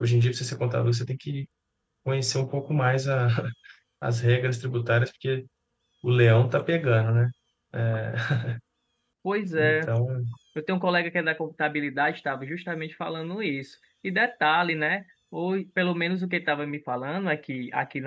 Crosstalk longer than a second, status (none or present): none